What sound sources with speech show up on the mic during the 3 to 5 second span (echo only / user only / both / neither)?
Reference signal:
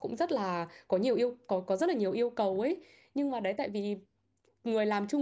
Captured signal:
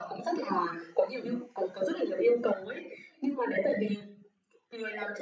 echo only